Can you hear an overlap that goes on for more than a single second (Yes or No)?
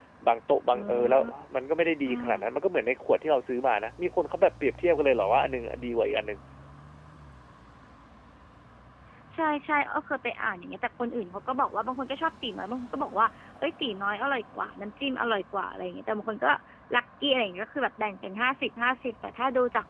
No